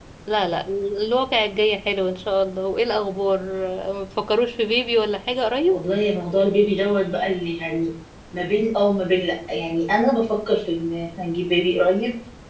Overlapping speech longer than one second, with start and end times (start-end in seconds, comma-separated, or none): none